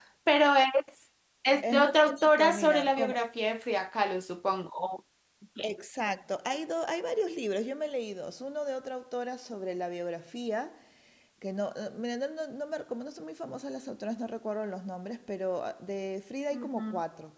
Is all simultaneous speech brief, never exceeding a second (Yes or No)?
No